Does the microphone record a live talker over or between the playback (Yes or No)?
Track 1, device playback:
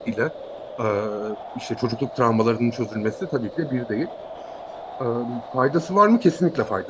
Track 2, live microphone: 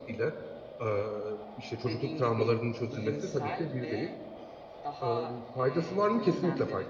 Yes